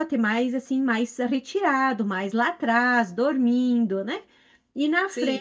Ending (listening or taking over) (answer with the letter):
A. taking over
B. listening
B